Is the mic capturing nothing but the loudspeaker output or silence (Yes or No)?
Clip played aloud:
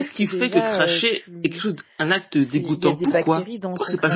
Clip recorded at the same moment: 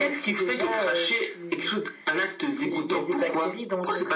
Yes